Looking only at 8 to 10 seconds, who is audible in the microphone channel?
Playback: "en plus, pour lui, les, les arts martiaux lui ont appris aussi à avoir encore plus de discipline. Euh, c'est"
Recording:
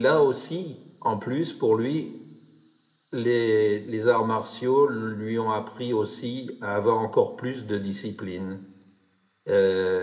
echo only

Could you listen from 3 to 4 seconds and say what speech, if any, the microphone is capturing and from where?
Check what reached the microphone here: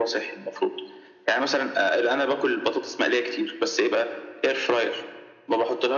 echo only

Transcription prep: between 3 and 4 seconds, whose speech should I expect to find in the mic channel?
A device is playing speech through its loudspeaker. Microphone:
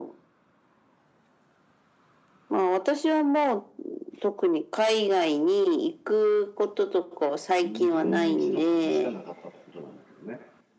echo only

